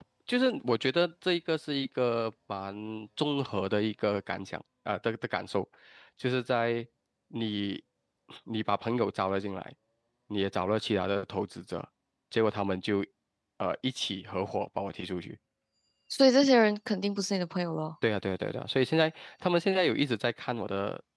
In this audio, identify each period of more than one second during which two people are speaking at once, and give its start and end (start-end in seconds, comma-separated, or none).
none